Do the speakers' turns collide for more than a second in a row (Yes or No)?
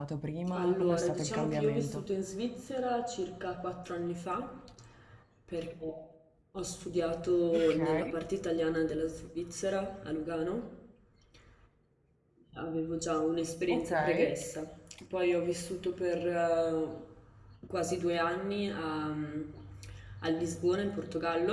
Yes